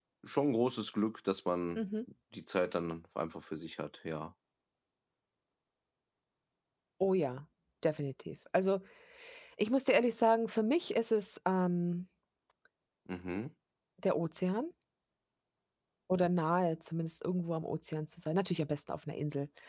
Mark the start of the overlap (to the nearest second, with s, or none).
none